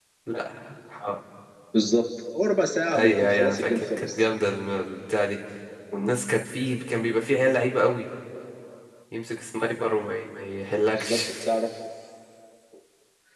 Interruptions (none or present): present